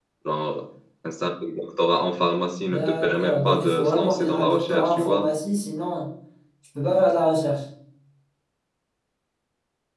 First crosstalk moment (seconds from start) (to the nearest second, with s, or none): 3 s